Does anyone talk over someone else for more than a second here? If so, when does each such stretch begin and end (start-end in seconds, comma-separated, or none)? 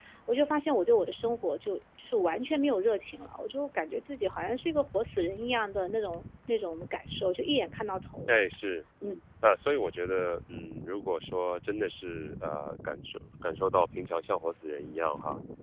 none